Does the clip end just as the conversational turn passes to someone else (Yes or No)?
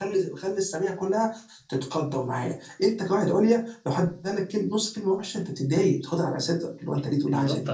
Yes